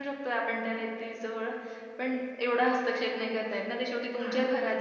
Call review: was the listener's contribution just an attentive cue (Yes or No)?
Yes